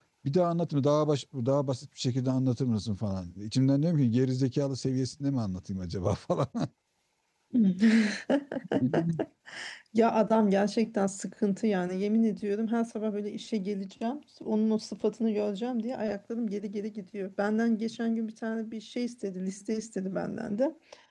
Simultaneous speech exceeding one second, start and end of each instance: none

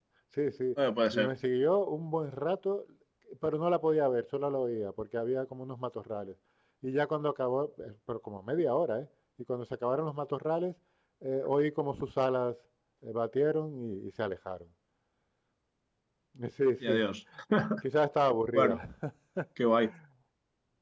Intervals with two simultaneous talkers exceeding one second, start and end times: none

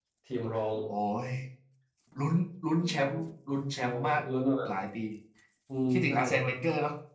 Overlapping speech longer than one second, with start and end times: none

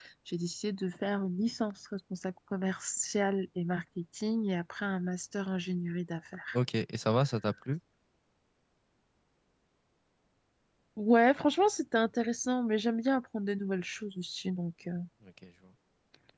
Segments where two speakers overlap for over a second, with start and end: none

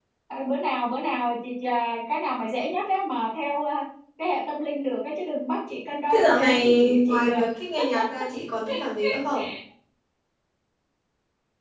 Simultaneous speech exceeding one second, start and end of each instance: 6.1-7.4

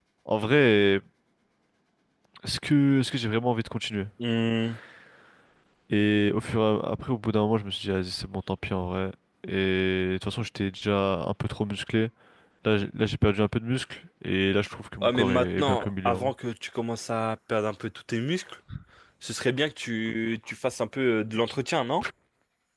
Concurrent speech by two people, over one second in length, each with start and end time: 15.0-16.3

